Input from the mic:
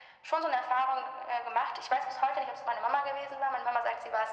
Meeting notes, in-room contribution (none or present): none